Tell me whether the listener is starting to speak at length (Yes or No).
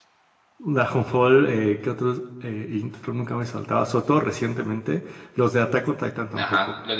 Yes